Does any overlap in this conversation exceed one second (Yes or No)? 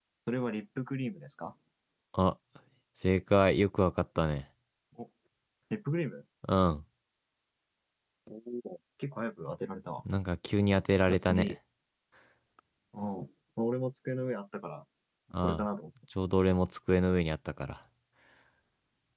No